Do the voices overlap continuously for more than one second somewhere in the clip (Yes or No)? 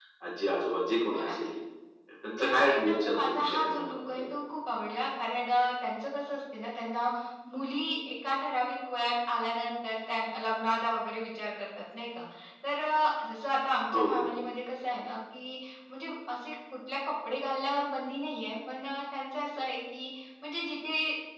Yes